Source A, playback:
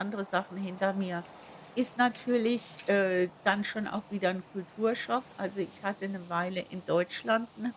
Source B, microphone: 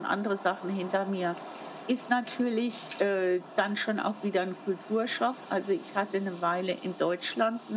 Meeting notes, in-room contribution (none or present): none